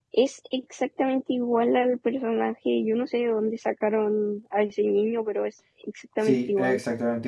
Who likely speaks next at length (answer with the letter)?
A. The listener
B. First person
A